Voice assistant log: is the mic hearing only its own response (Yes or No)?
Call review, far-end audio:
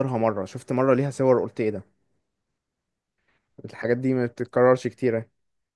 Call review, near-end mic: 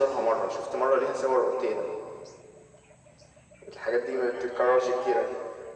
Yes